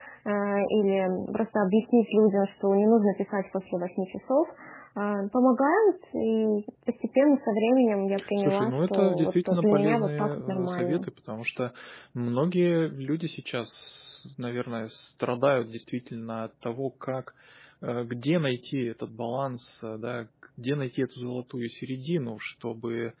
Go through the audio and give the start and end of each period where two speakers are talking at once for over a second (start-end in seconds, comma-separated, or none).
8.4-11.1